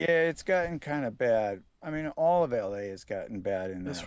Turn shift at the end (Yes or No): Yes